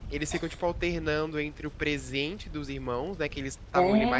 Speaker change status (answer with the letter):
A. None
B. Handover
A